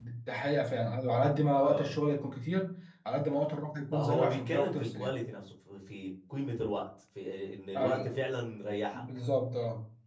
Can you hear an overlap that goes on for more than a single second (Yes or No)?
Yes